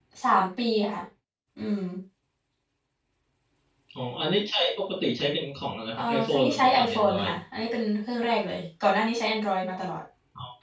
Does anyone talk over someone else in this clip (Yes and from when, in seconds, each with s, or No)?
Yes, from 5.9 s